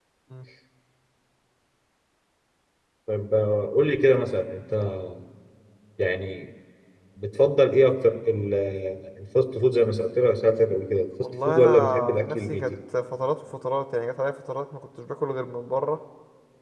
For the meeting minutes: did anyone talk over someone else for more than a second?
Yes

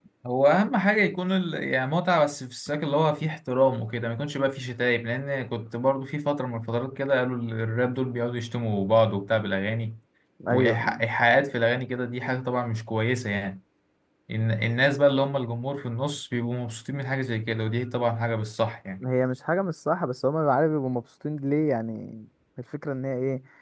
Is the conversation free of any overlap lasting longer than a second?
Yes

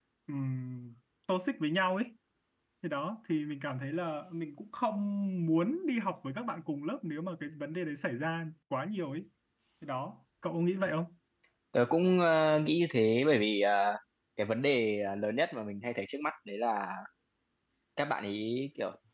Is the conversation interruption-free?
Yes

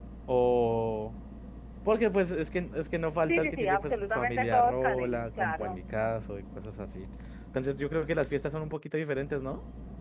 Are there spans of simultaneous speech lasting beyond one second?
Yes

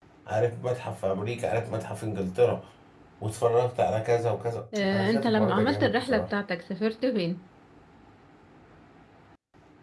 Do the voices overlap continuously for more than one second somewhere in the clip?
Yes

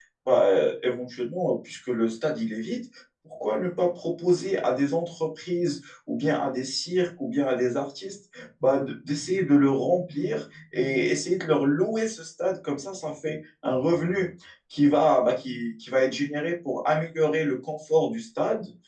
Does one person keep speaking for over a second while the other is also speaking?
No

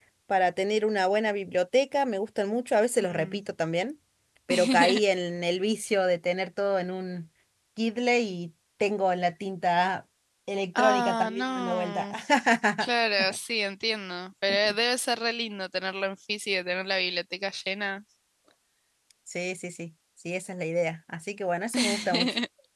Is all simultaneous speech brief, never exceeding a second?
No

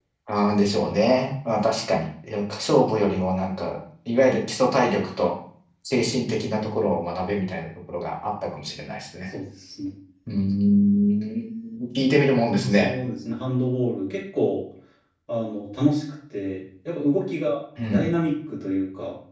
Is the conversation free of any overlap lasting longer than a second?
Yes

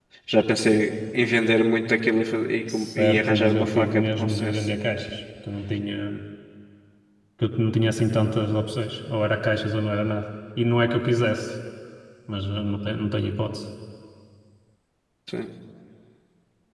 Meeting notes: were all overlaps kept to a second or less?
No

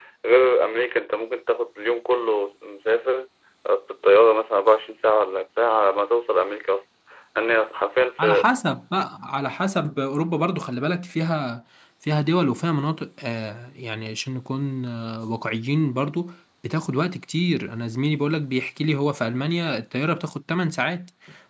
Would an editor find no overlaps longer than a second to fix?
Yes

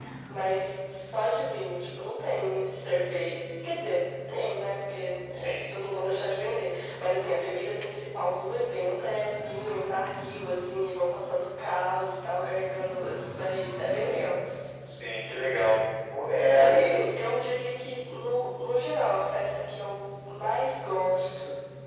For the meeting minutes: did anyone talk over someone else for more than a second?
No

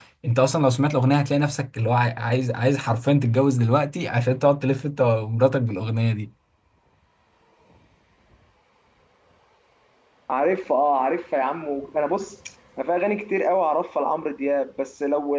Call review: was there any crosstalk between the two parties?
No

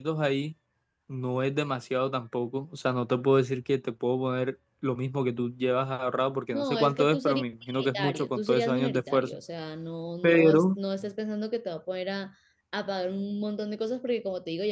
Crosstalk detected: Yes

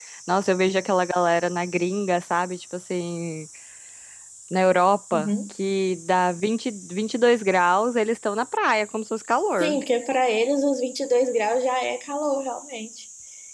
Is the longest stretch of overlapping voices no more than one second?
Yes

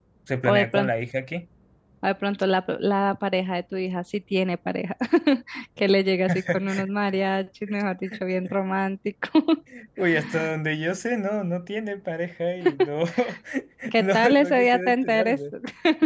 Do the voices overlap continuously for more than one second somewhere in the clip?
Yes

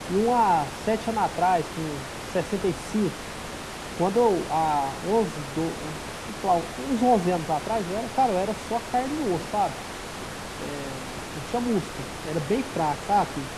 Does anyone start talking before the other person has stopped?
No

